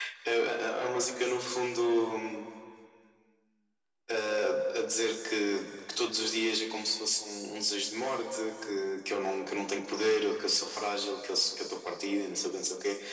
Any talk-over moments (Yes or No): No